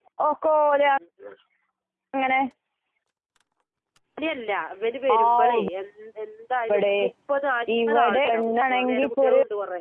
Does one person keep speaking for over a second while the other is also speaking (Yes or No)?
Yes